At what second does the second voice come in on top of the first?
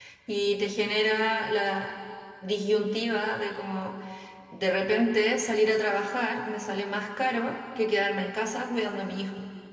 none

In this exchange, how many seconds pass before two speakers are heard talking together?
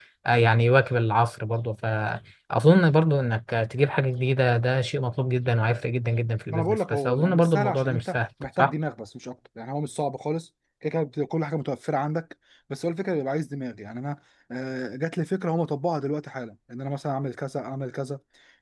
7 s

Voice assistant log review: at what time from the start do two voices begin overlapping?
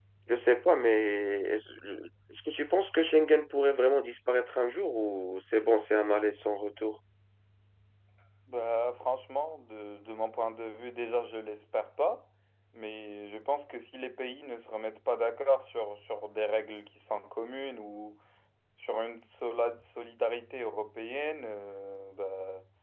none

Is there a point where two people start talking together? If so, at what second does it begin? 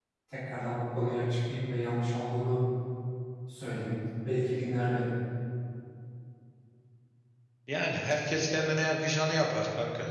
none

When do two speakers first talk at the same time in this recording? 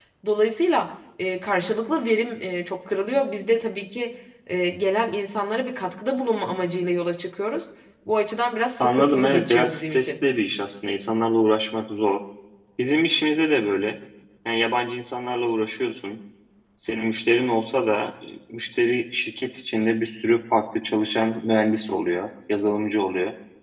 9 s

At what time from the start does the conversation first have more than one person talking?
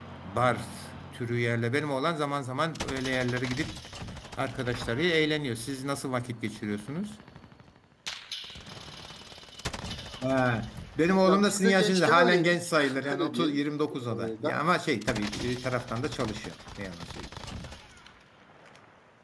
11 s

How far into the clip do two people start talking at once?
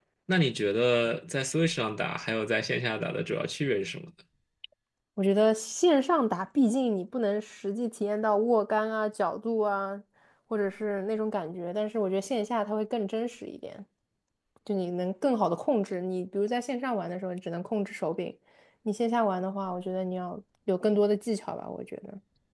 none

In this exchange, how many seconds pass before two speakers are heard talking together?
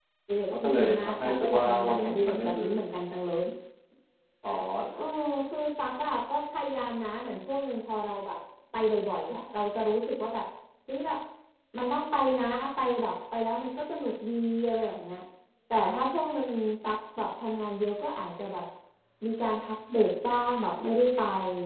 1 s

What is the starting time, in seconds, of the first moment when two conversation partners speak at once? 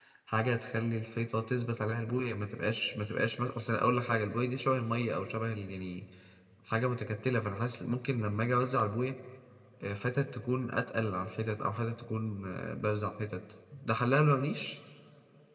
none

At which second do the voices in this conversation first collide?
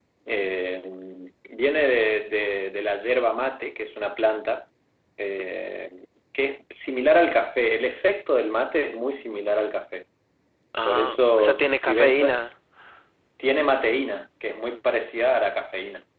11 s

